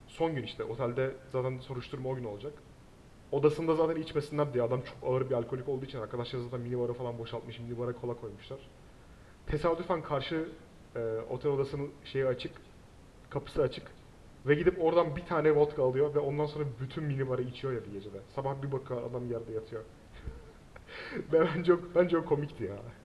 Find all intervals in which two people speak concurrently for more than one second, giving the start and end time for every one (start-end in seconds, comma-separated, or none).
none